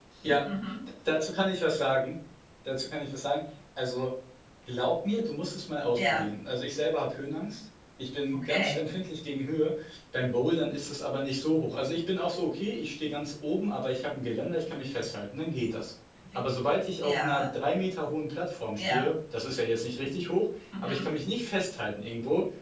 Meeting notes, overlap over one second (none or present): none